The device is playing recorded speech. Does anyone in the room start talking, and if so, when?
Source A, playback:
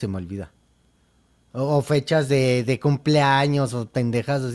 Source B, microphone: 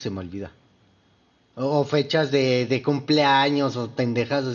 none

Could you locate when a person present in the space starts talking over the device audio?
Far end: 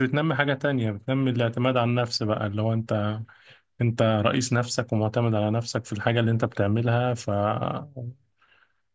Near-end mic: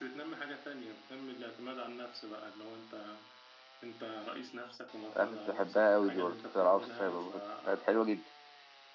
5.2 s

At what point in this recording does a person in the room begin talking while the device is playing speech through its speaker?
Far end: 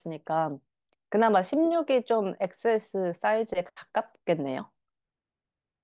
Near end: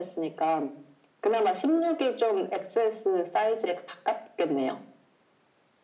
none

